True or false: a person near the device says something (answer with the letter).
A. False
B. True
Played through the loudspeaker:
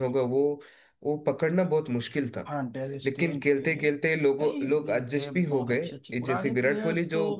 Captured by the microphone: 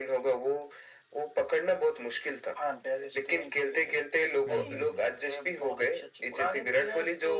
B